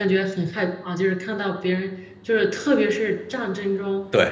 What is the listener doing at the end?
listening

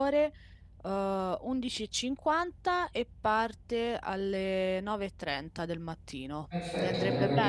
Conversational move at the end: taking over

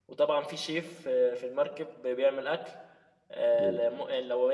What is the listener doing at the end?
listening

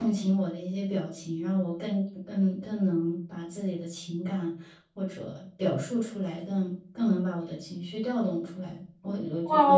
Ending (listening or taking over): taking over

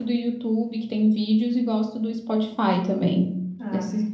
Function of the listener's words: taking over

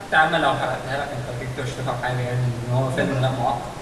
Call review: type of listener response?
listening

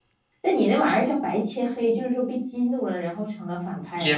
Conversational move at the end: taking over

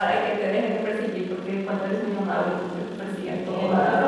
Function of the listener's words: taking over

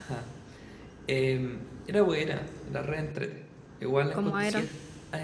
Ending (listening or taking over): listening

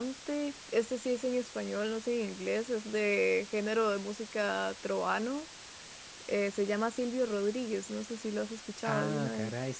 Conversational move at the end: taking over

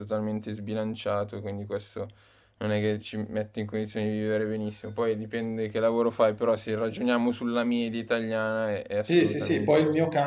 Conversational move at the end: taking over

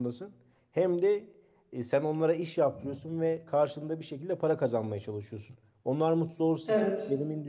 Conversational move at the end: listening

